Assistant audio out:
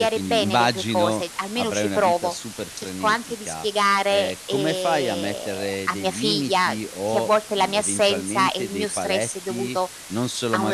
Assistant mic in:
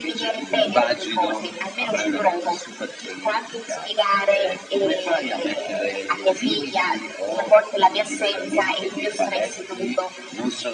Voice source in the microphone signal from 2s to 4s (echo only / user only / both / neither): echo only